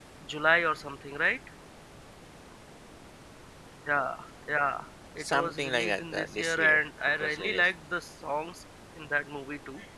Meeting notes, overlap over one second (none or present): present